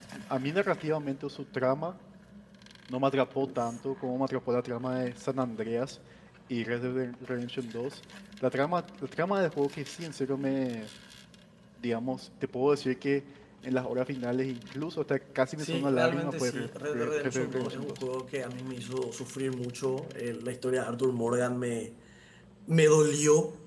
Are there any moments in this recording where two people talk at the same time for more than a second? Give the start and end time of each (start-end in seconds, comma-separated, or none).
15.6-18.0